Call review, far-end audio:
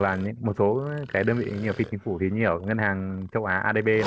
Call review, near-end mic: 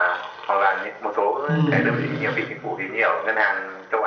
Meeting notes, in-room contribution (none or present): present